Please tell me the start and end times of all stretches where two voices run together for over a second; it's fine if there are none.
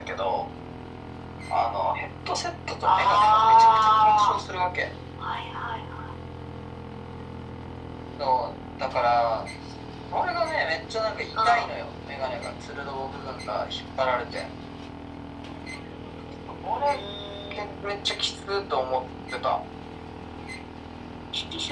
2.8-4.4

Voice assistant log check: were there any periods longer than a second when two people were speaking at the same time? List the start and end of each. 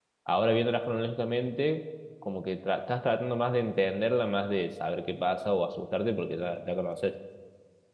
none

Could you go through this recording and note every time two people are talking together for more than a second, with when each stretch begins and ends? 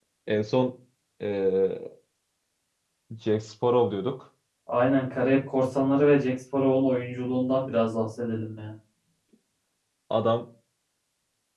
none

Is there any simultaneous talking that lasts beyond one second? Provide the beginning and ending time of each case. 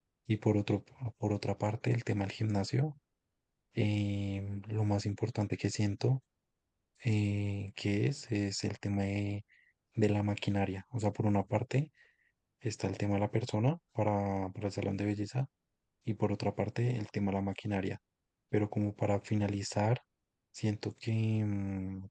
none

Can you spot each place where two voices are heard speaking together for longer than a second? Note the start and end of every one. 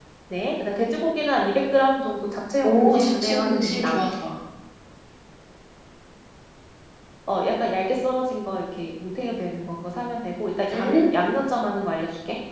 2.6-4.1

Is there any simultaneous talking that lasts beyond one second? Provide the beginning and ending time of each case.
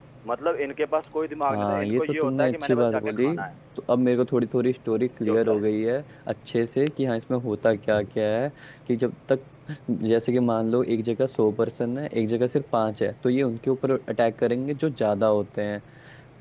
1.5-3.2

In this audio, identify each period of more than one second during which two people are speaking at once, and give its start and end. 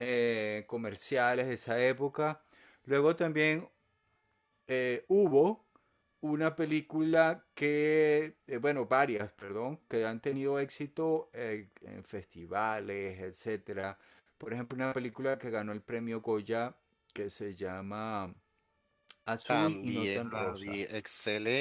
19.5-20.8

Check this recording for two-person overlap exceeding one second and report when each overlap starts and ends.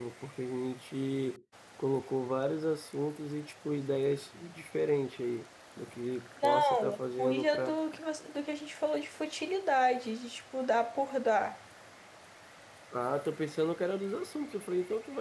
6.4-7.7

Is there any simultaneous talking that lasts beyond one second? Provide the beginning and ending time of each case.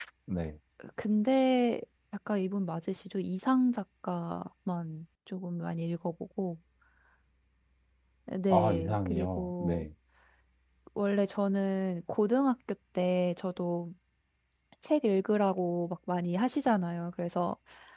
8.5-9.8

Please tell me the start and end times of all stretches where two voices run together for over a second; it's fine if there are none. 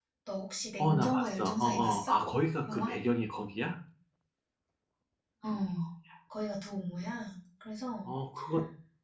0.8-2.1

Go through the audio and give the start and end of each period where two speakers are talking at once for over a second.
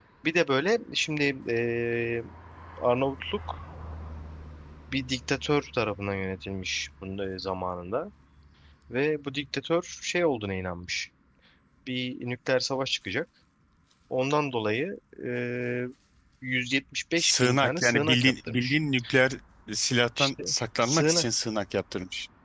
17.2-18.8

